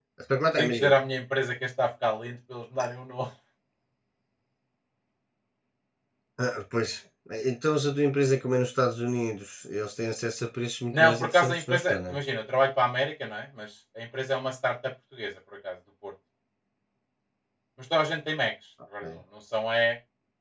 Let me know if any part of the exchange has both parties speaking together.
Yes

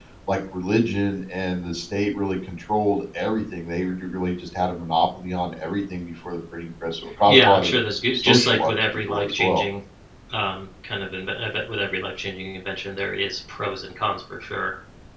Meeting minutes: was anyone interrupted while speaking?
Yes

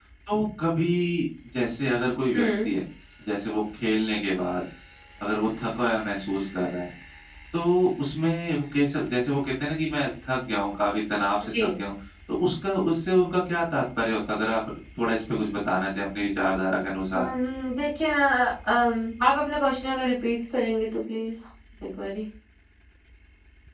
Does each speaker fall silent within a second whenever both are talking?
Yes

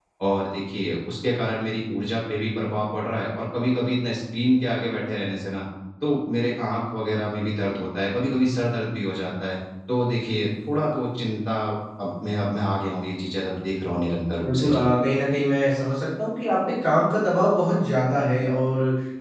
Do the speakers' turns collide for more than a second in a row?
No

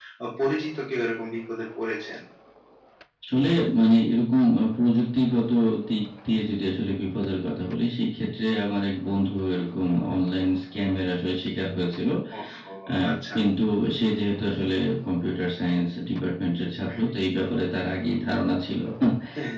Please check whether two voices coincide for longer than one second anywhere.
No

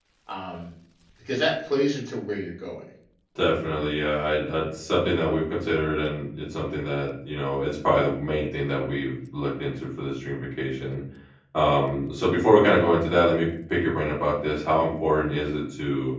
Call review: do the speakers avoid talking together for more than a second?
Yes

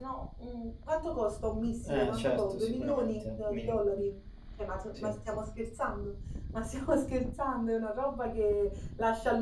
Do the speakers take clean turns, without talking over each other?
No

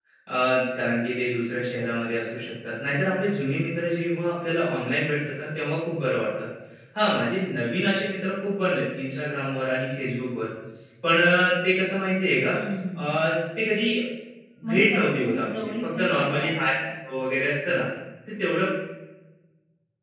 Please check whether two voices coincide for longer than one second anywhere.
Yes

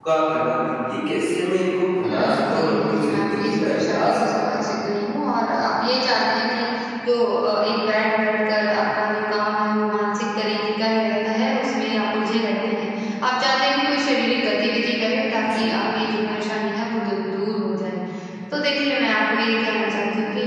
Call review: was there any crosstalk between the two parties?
Yes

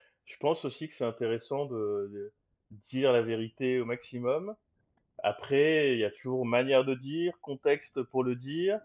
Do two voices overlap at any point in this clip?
No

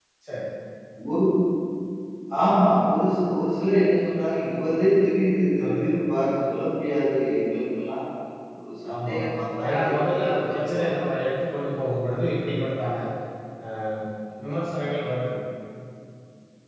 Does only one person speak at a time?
No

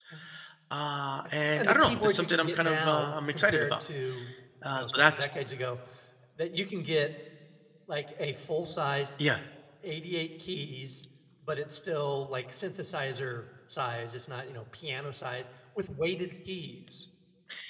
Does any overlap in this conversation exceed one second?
Yes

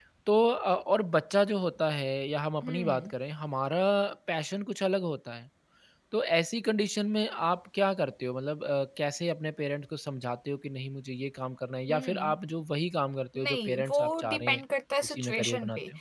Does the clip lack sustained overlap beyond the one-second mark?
No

